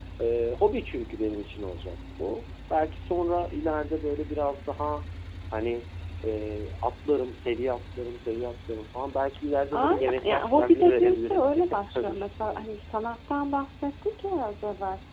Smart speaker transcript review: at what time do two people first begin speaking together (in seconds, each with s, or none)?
9.7 s